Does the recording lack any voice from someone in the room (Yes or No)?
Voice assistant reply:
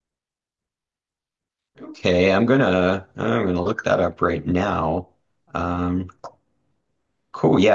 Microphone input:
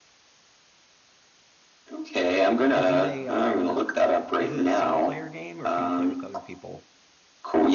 No